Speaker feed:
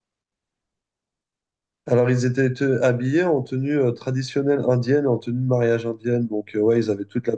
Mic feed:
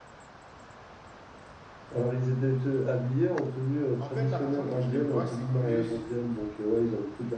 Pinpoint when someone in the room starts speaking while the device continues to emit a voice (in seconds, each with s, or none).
4.0 s